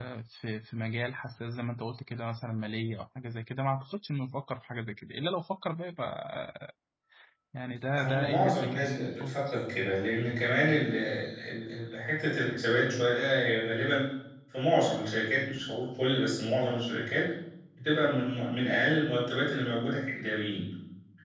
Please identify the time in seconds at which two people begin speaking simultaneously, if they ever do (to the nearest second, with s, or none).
8 s